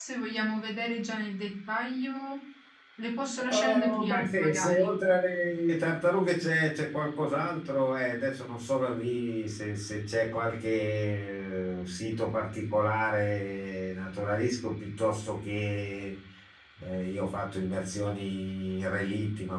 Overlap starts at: 3.4 s

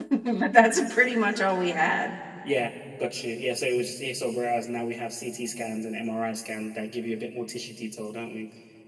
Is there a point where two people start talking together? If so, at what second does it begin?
none

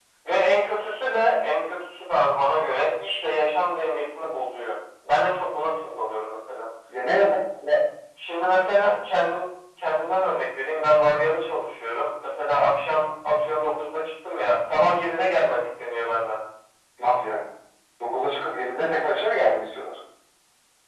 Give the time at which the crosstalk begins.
none

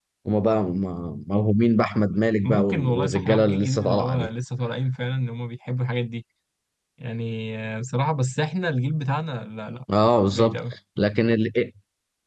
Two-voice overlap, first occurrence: 2.4 s

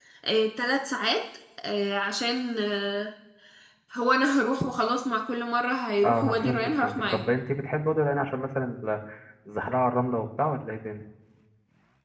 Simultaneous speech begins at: 6.0 s

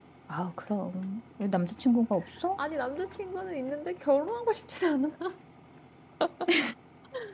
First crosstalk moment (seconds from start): none

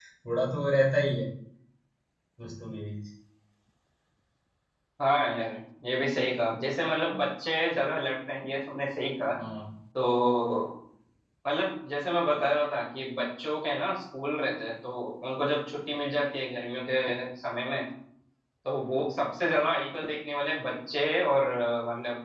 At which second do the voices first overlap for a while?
none

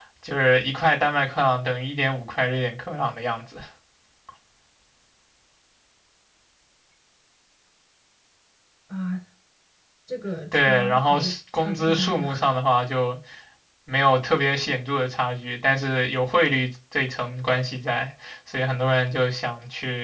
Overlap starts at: 10.5 s

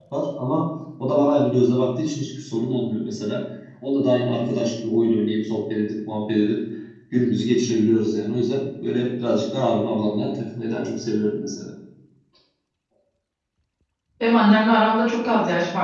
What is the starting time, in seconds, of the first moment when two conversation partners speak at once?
none

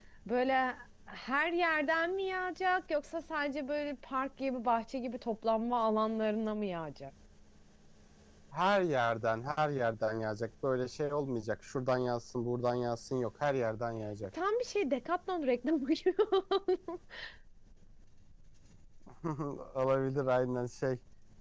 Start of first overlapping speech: none

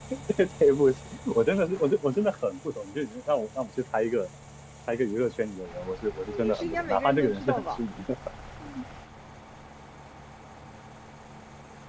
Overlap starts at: 6.3 s

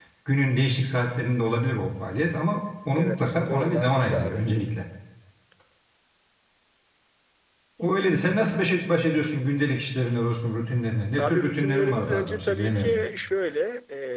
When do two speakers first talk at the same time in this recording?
2.9 s

